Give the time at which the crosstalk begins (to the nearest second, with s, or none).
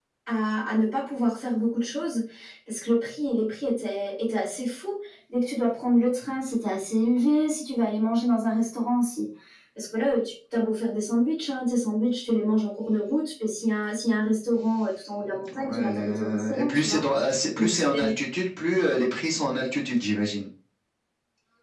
16 s